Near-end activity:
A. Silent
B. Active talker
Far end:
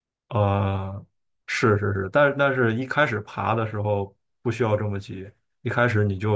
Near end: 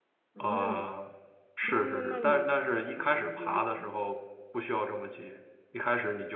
B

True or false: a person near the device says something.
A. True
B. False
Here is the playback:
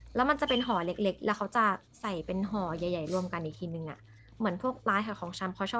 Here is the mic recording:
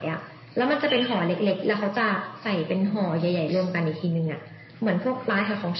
B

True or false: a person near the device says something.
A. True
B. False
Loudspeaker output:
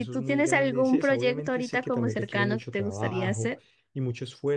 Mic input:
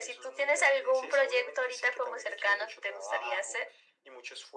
B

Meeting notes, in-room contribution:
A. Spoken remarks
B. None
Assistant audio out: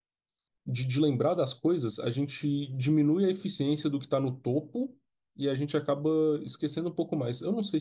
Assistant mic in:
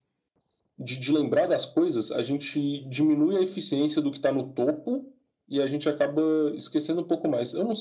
B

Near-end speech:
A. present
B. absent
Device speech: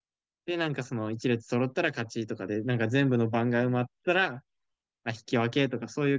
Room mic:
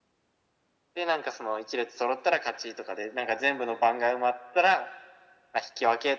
B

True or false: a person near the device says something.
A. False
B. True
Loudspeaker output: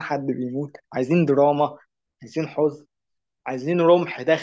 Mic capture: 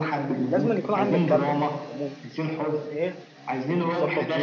B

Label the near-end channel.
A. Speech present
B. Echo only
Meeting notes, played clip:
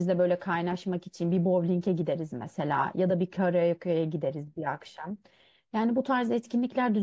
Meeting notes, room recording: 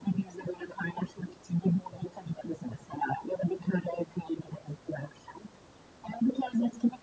B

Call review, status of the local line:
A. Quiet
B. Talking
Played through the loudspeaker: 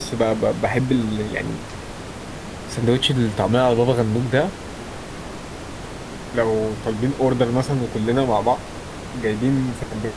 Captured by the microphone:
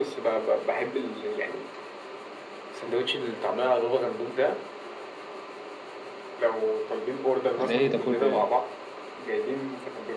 B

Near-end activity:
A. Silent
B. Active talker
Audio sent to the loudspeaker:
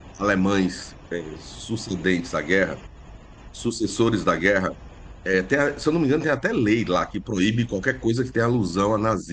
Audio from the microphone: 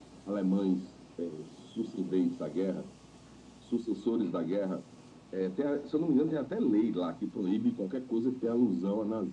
A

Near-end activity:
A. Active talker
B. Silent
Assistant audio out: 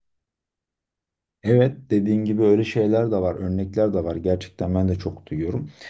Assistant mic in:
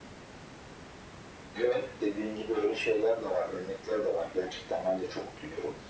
B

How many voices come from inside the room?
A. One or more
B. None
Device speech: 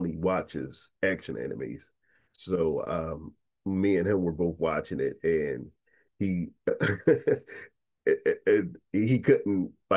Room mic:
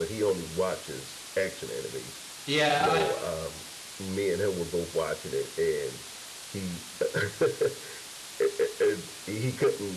A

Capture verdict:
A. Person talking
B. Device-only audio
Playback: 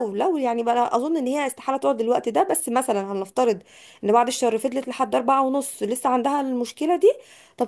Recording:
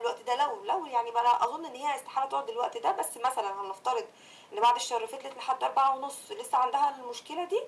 B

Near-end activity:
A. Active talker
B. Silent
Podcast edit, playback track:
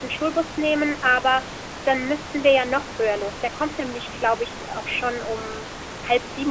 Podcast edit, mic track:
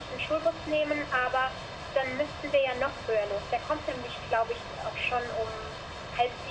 B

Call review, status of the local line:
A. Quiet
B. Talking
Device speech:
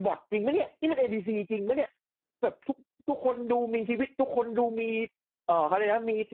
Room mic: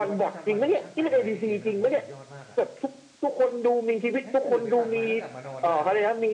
B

